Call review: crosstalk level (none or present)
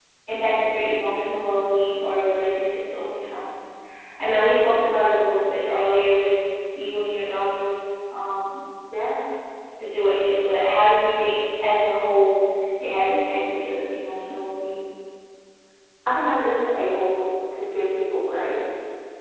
none